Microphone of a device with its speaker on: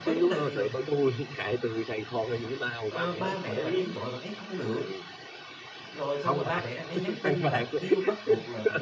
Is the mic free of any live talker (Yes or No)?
No